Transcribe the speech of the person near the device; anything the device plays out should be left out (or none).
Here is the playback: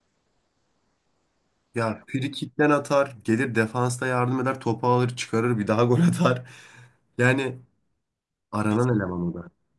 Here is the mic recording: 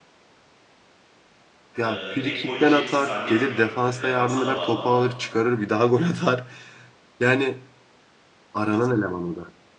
Ee, pek gol yiyeceğimizi zannetmiyorum. Tabii defansa da bağlı ama